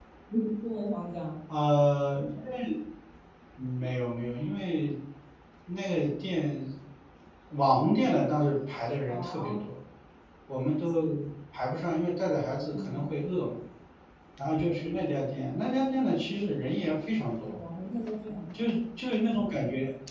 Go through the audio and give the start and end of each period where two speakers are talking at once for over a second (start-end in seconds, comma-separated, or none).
none